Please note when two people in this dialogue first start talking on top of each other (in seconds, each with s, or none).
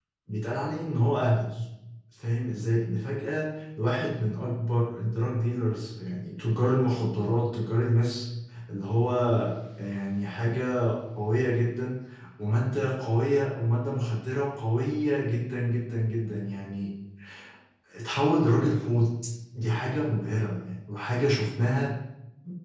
none